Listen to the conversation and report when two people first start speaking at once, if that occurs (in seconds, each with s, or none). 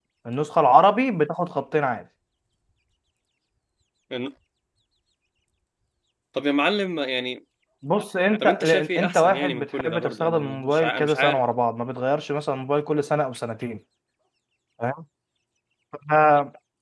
8.4 s